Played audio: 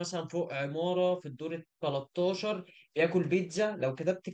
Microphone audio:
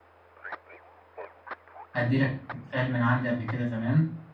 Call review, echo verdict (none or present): none